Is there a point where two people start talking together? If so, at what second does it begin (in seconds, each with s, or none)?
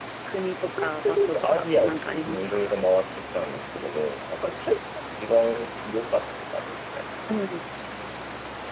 0.6 s